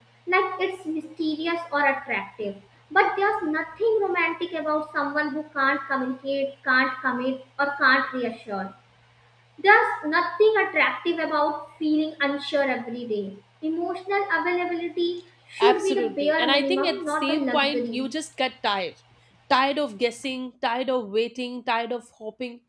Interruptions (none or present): present